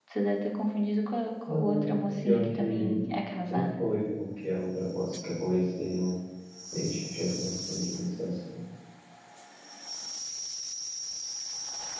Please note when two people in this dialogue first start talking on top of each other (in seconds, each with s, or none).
1.5 s